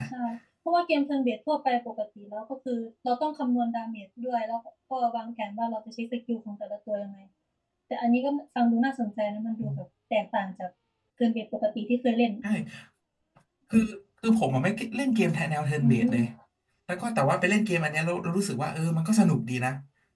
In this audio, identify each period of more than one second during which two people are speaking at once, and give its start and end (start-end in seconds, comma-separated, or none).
none